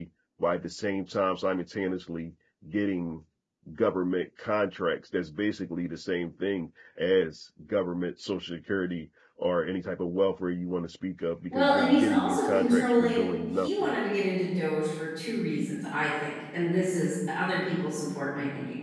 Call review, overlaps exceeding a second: present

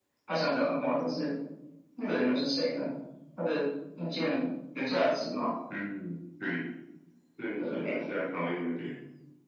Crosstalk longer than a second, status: none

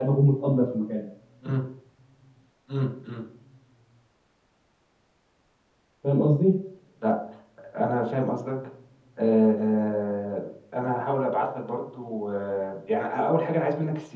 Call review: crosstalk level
none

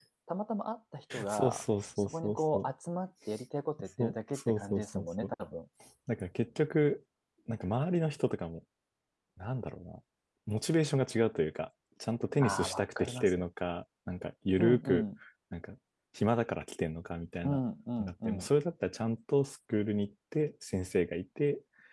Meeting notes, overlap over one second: present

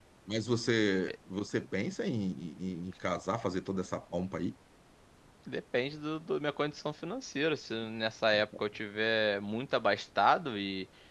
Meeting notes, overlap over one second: none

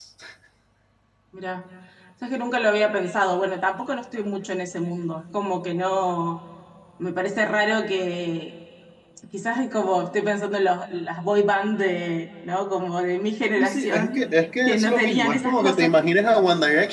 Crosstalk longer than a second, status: present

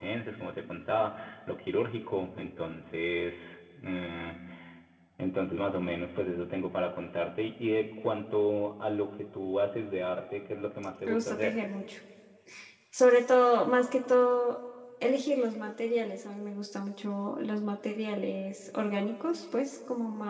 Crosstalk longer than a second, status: none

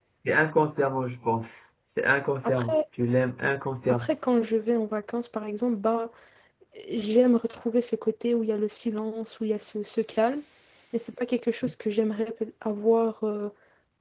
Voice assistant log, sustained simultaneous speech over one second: none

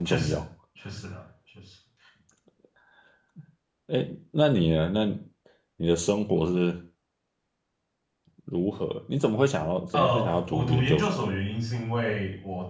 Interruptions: present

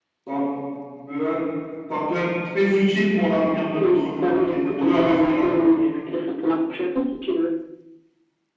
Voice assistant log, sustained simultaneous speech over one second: present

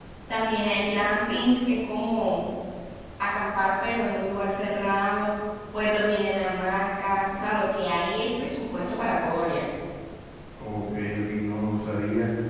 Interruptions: none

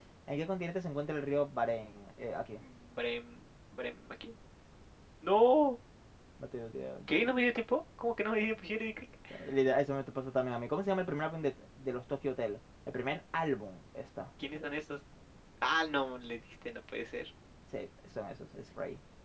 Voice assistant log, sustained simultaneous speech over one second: none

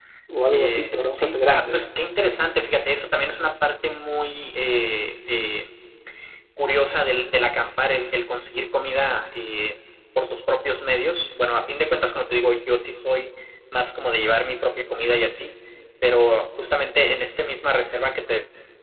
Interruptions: present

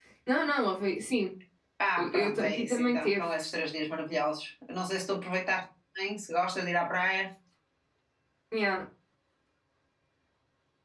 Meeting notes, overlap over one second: present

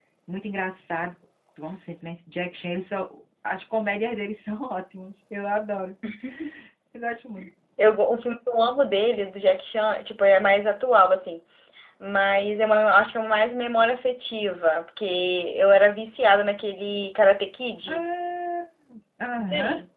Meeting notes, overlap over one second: none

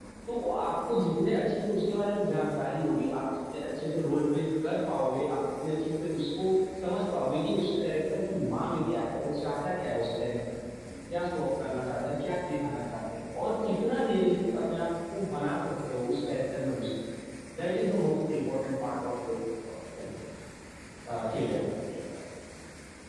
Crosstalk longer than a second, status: none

